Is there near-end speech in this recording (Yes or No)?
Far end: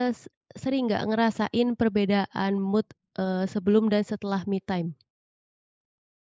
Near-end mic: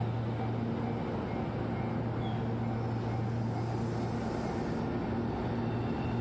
No